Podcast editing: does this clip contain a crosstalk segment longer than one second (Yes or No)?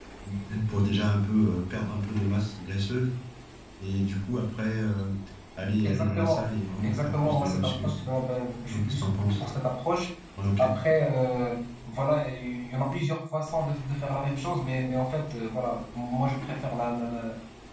Yes